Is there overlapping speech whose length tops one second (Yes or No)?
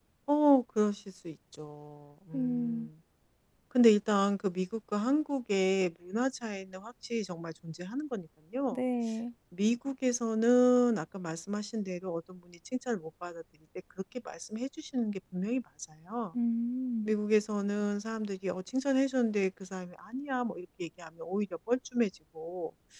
No